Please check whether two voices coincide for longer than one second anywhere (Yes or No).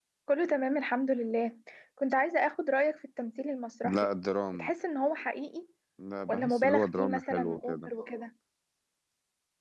Yes